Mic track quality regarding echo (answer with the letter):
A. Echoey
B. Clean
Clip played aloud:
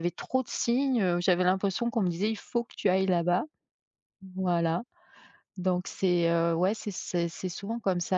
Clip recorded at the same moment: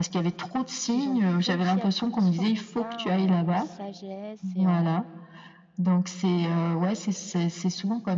A